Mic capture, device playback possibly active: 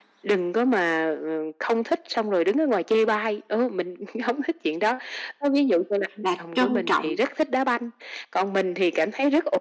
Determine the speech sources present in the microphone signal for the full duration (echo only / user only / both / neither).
both